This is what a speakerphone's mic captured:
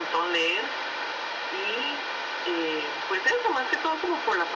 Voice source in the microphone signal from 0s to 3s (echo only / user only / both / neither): echo only